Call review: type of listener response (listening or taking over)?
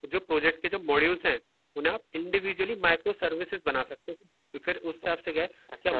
listening